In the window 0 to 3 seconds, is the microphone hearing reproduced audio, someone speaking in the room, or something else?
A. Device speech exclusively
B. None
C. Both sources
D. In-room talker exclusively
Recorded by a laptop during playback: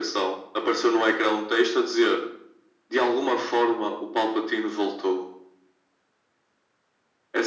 A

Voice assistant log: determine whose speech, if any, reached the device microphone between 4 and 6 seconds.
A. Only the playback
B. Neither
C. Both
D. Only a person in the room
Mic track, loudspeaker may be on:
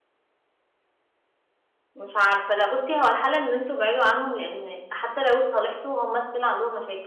D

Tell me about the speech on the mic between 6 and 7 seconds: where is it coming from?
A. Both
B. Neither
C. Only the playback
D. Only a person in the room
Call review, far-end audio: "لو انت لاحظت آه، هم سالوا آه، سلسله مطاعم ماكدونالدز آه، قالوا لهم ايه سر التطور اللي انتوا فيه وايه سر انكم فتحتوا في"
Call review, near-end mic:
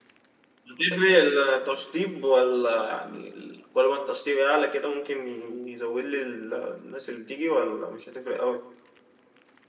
D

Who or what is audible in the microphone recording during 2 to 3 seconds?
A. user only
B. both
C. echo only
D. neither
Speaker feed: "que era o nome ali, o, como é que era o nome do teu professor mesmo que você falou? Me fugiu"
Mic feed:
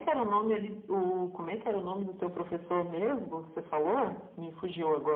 C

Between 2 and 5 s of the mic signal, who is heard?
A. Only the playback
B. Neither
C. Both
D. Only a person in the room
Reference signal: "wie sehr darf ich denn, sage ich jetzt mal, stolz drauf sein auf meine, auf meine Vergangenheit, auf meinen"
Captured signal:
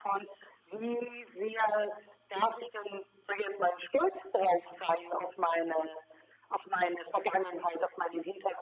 A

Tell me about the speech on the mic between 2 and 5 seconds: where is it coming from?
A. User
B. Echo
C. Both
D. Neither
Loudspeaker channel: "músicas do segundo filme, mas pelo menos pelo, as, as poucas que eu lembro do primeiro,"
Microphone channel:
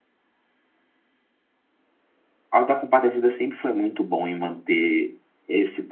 A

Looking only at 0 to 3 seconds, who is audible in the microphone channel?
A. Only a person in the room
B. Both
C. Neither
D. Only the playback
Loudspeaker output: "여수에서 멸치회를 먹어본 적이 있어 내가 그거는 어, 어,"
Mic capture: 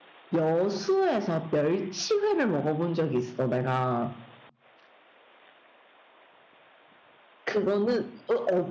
D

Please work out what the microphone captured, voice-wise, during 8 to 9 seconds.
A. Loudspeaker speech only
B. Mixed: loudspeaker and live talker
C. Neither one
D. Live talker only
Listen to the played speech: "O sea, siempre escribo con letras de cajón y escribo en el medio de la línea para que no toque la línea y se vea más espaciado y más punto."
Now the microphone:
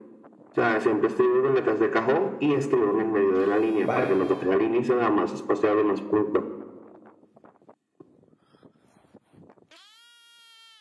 C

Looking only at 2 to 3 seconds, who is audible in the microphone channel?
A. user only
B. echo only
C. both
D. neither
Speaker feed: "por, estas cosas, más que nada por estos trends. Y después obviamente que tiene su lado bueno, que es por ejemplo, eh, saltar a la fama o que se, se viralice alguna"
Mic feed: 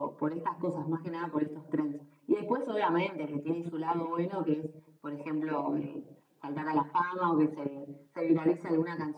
B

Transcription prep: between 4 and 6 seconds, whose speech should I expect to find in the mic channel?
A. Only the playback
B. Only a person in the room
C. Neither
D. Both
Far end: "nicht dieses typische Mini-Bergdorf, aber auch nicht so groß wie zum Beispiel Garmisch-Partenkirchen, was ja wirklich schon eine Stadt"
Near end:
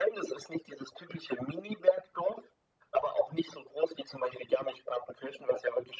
A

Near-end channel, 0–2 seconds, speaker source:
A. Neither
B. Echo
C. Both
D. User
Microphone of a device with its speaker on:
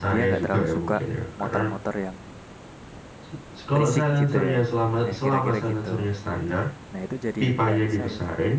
C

